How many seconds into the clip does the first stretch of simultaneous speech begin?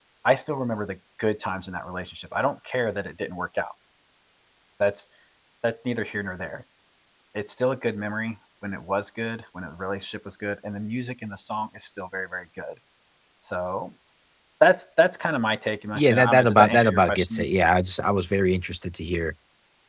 16.0 s

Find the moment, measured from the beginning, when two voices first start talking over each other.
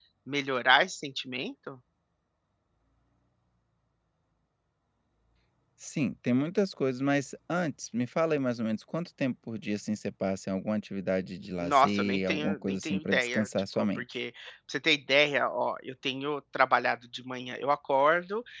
11.6 s

